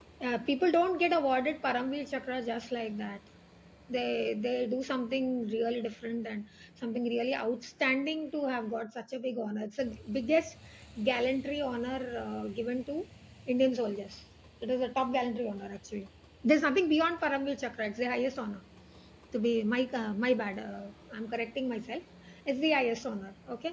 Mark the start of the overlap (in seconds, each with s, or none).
none